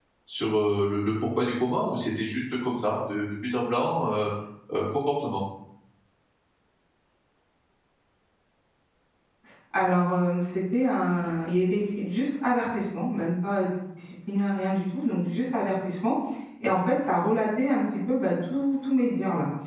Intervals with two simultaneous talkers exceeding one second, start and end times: none

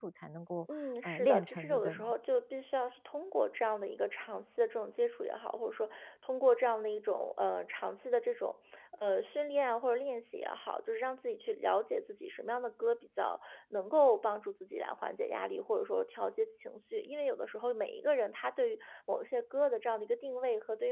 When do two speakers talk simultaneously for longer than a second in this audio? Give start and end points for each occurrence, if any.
0.7-2.1

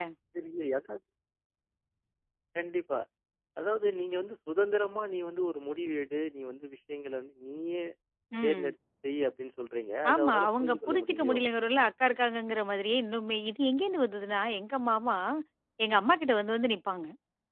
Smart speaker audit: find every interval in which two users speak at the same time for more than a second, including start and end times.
10.1-11.4

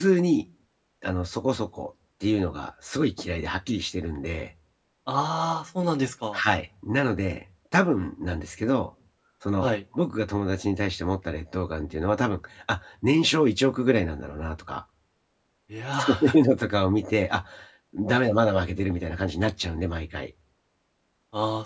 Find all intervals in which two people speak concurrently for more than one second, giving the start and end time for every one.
none

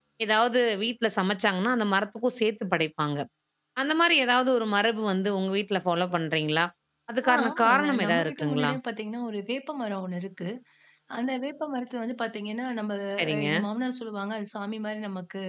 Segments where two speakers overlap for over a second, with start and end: 7.5-8.7

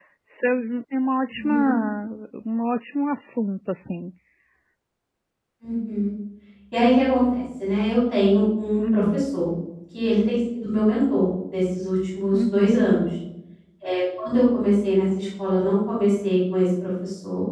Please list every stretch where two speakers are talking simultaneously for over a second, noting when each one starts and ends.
none

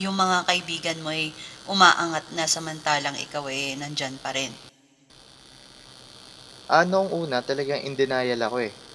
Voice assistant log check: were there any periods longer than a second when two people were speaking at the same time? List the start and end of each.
none

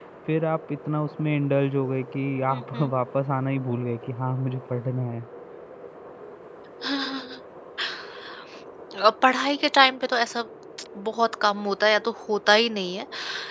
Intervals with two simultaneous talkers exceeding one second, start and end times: none

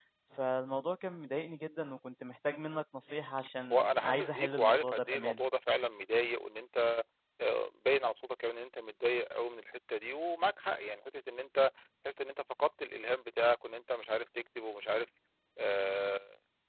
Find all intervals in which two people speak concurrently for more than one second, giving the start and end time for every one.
3.7-5.4

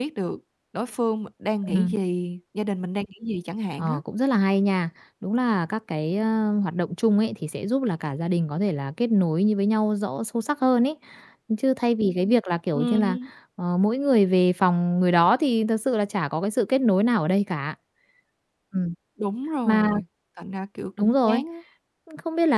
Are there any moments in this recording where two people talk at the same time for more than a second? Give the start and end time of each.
none

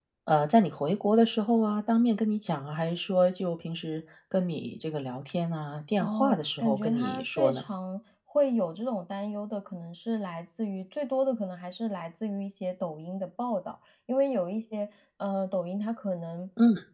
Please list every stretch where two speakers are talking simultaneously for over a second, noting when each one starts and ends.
6.0-7.6

